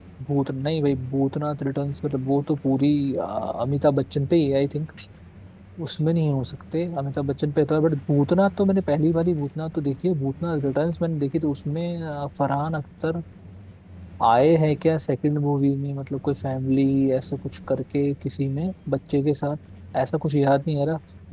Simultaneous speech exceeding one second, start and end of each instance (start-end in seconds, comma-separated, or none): none